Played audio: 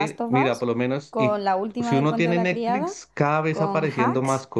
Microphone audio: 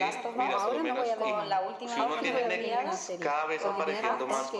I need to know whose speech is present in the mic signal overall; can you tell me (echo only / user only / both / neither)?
both